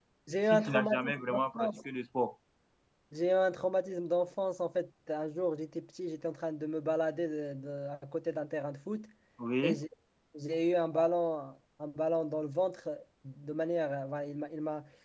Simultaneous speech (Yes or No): Yes